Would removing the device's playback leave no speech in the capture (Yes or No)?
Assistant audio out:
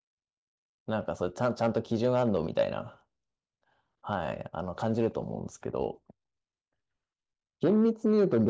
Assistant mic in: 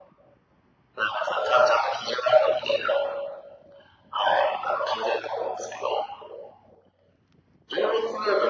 Yes